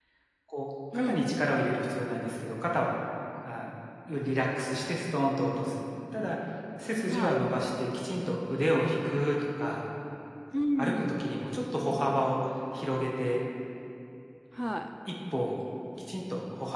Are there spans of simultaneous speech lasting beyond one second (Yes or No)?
No